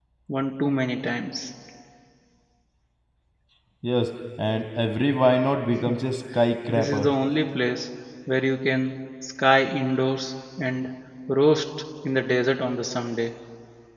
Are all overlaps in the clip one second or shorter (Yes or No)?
Yes